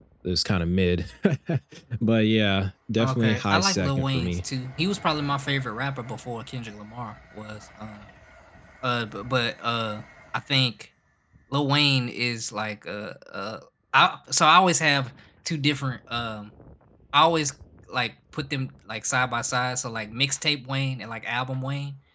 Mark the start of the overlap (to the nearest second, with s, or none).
3 s